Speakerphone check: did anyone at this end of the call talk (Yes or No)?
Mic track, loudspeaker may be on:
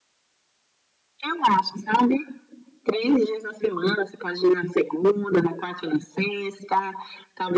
No